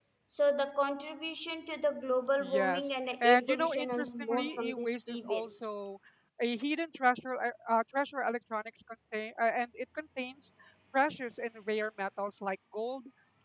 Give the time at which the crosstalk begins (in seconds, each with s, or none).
2.4 s